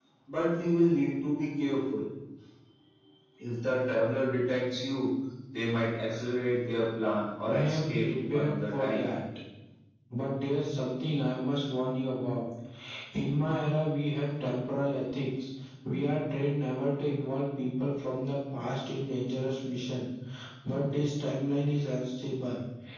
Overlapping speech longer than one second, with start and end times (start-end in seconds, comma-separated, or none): 7.5-9.1